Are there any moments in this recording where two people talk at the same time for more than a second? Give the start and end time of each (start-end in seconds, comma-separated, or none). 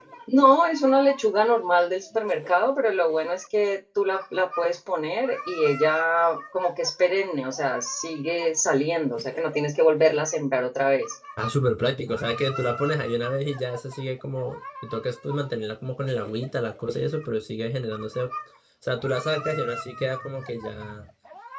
none